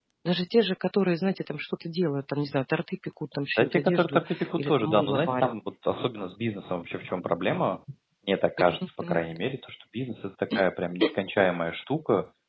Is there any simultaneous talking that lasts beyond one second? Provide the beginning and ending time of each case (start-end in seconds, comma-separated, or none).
3.6-5.5